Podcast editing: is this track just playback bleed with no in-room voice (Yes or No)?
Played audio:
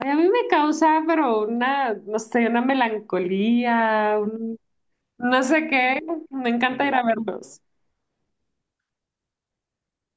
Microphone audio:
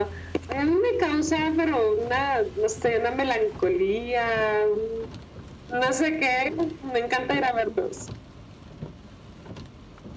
Yes